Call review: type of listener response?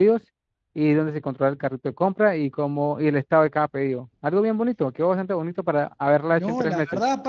taking over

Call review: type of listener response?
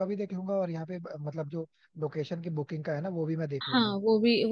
taking over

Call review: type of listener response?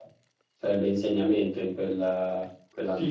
taking over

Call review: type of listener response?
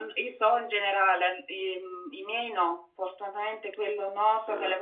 listening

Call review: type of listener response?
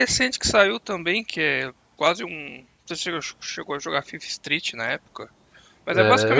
taking over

